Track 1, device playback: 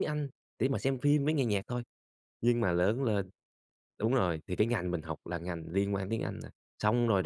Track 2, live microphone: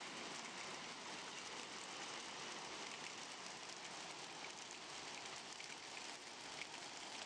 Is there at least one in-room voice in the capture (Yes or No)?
No